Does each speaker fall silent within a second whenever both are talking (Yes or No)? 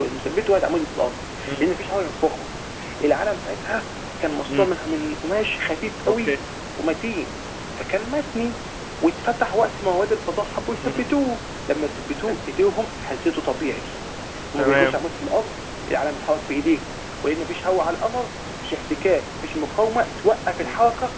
Yes